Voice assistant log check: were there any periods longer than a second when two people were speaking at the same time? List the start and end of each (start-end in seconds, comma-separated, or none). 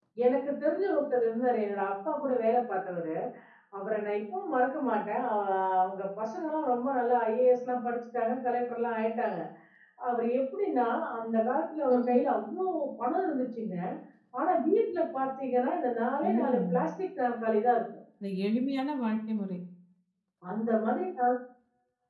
none